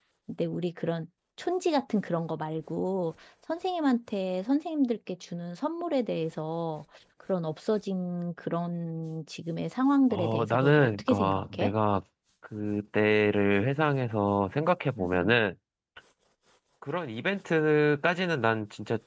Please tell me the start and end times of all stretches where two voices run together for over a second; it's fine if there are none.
10.1-11.7

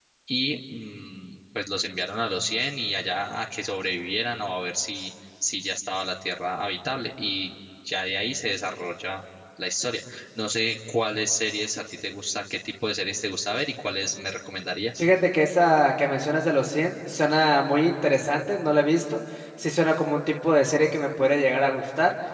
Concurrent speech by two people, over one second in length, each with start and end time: none

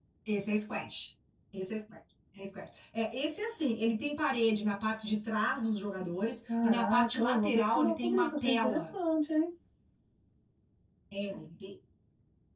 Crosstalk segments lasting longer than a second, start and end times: 6.6-8.9

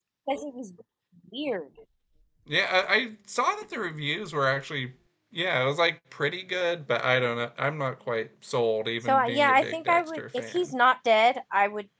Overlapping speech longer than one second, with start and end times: 9.1-10.7

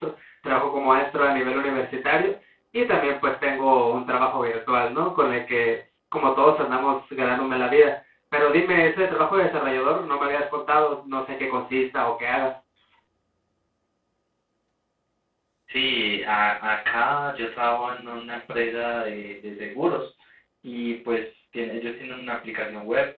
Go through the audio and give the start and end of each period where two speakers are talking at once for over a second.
none

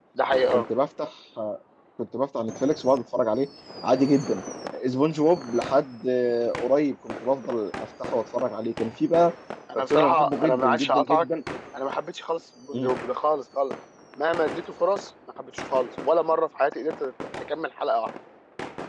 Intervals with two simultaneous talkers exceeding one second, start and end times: 9.8-11.2

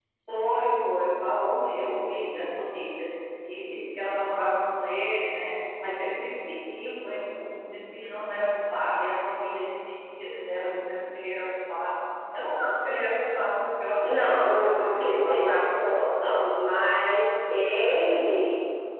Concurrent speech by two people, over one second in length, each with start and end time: 14.0-15.6

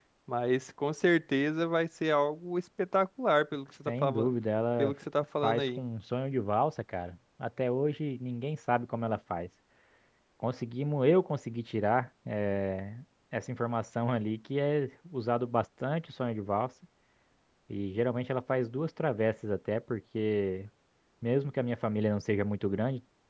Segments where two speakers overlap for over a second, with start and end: none

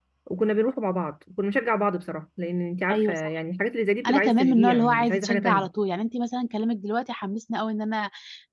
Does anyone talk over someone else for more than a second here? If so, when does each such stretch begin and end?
4.1-5.7

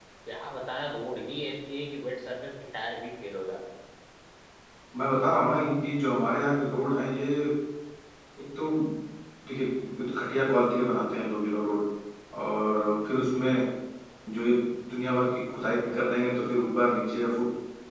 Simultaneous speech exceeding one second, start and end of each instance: none

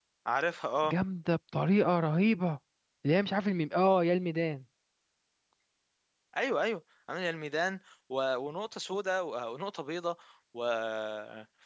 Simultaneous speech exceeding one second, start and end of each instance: none

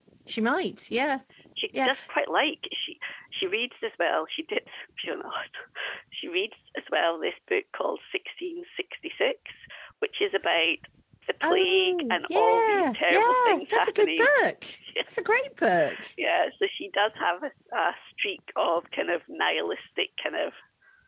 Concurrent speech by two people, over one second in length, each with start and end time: 11.4-14.3

